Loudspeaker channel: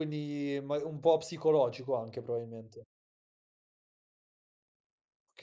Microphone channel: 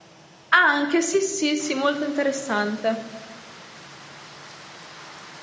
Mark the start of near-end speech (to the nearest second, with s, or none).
1 s